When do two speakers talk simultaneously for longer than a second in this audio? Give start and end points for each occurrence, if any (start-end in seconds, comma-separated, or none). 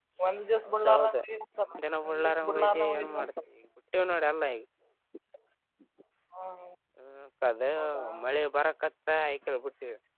2.1-3.3